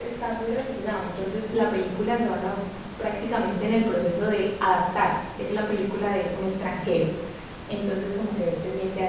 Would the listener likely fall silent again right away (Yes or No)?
Yes